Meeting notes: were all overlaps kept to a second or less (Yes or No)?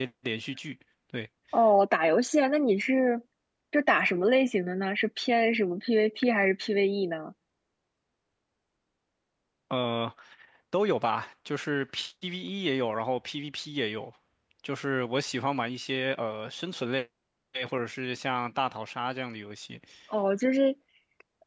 Yes